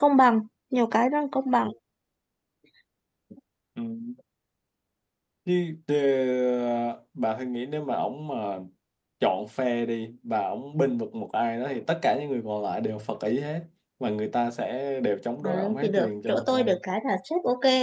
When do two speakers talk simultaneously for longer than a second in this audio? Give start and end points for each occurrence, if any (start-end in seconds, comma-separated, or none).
15.4-16.7